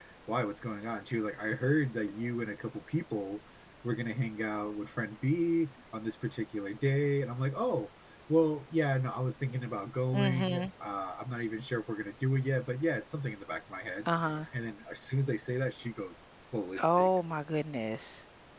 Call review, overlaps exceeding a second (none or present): none